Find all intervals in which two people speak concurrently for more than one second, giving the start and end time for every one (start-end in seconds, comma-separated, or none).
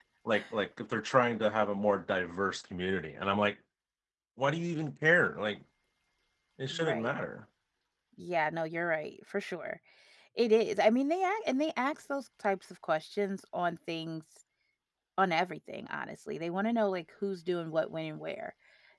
none